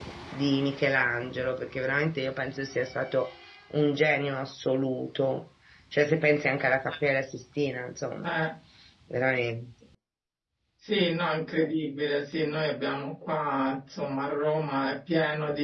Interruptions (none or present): none